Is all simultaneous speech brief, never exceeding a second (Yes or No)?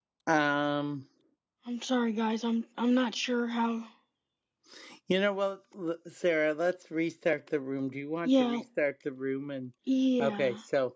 Yes